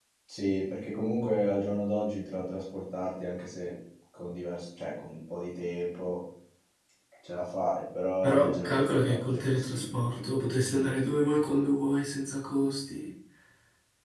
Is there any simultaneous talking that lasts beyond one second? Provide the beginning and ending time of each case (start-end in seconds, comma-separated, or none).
8.2-11.4